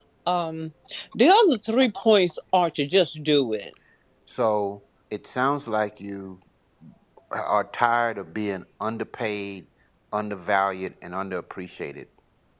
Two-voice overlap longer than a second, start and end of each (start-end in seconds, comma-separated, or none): none